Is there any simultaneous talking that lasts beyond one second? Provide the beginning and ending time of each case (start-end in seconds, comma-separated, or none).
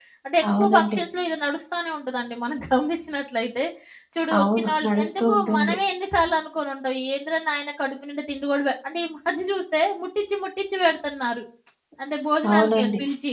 4.4-5.7